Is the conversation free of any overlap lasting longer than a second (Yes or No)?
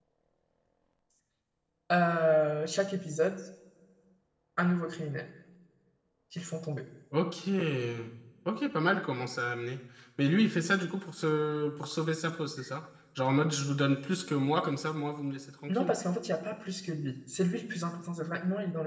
Yes